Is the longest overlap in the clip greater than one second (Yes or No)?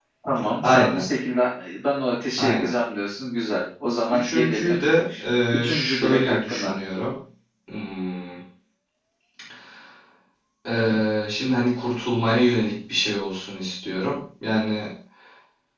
Yes